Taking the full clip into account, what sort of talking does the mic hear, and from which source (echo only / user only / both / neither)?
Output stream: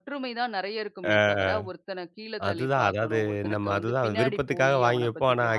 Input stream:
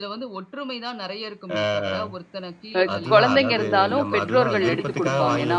both